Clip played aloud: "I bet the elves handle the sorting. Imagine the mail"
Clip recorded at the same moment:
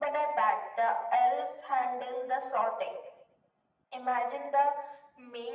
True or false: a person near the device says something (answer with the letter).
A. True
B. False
B